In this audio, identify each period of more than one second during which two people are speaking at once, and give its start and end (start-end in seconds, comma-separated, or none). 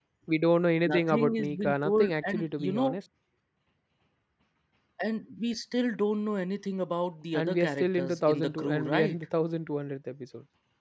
0.8-3.0, 7.3-9.2